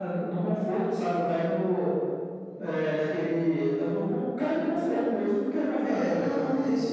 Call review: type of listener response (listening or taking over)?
taking over